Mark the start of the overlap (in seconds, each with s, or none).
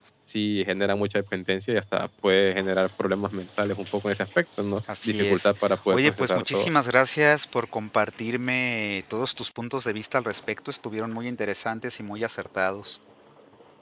4.9 s